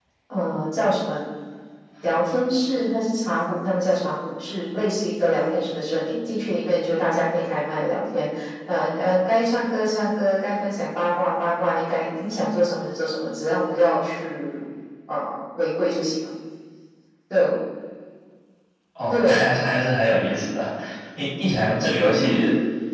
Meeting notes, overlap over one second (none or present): none